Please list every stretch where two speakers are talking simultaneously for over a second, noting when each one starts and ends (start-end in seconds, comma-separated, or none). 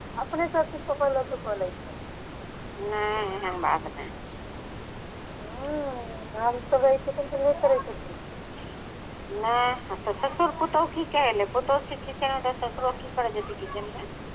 none